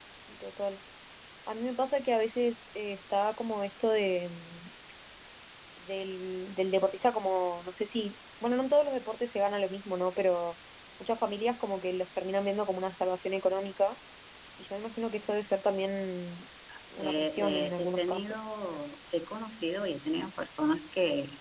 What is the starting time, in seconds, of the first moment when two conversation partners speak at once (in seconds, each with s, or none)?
17.0 s